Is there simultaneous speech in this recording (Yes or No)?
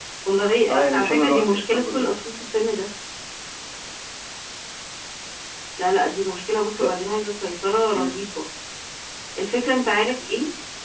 Yes